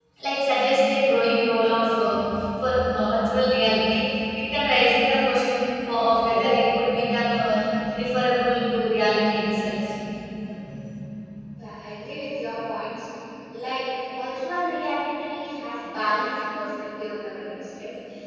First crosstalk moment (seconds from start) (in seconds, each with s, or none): none